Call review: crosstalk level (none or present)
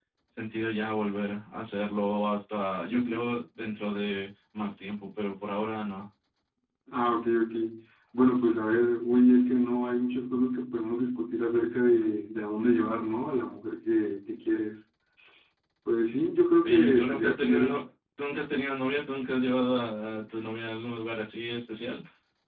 present